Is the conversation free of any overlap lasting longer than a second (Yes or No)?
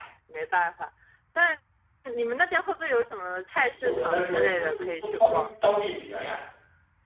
No